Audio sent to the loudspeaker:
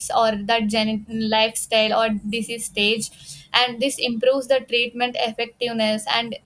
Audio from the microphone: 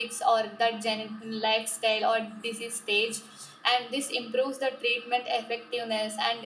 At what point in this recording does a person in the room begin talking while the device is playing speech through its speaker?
none

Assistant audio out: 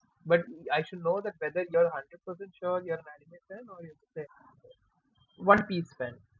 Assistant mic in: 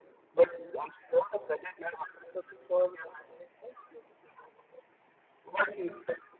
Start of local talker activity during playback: none

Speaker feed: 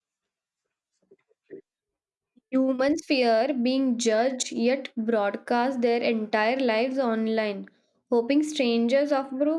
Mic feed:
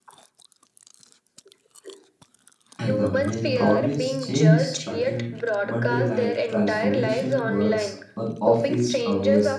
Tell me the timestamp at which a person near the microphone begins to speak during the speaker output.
2.8 s

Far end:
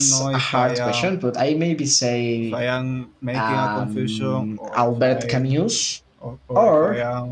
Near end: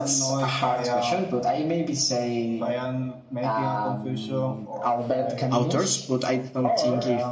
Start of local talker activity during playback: 5.5 s

